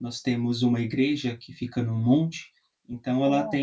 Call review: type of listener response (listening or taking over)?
listening